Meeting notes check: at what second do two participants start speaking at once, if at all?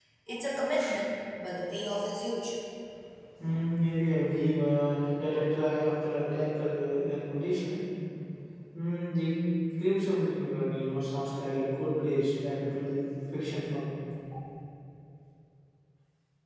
none

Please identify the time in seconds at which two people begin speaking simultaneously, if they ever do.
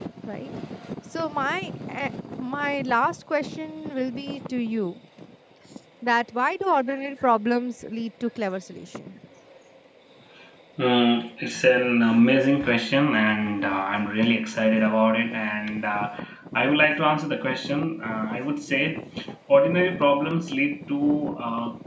none

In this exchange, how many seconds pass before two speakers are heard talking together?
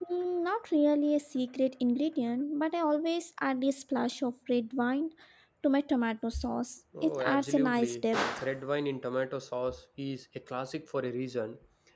6.9 s

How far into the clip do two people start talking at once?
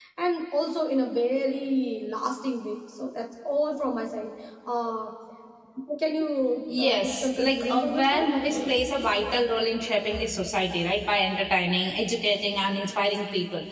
6.8 s

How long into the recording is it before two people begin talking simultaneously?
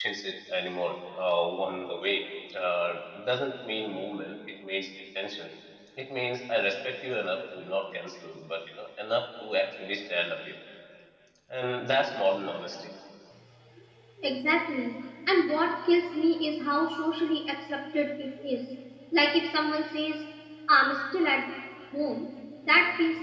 none

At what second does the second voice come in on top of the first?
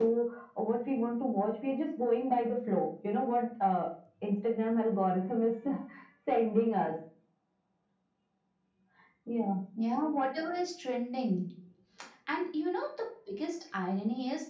none

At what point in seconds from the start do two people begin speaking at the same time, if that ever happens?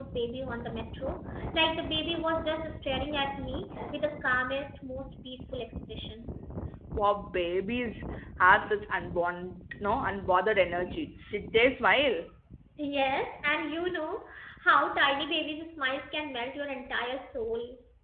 none

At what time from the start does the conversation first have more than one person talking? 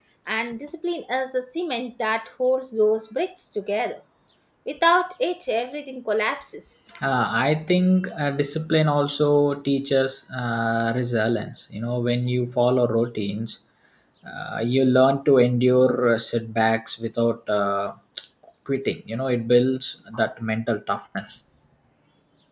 none

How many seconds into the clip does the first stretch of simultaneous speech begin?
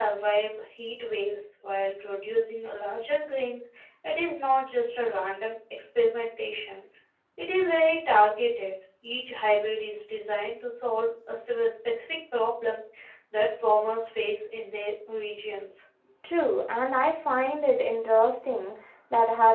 none

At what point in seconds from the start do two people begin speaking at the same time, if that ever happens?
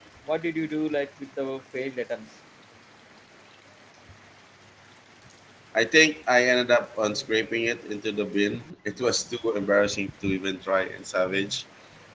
none

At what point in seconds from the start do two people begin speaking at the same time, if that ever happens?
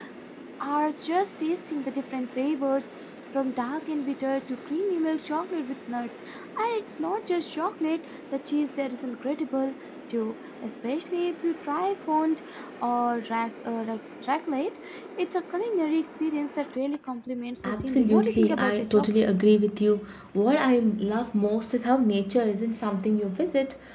17.6 s

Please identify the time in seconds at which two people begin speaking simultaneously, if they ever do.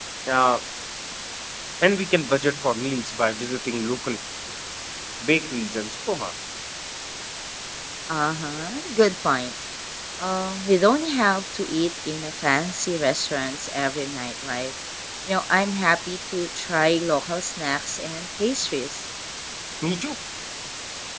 none

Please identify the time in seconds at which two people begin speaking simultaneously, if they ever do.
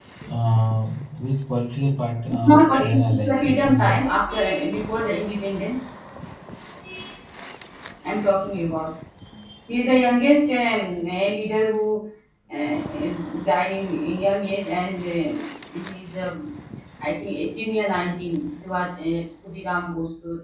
2.4 s

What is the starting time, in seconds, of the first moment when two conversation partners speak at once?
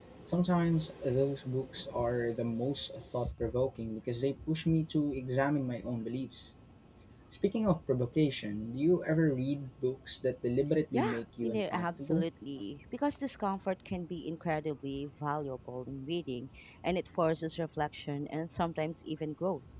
10.9 s

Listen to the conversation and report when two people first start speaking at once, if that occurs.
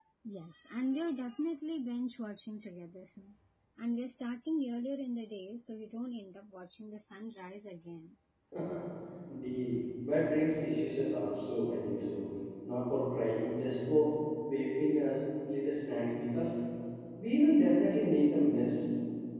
none

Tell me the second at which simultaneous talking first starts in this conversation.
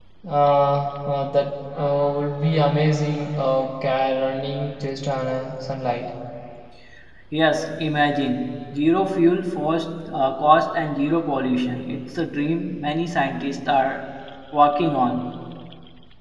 none

